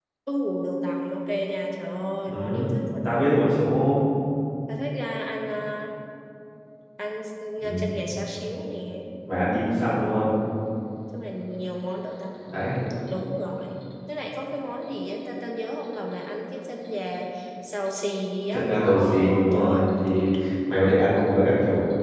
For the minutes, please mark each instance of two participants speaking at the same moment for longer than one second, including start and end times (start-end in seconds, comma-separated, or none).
18.5-19.8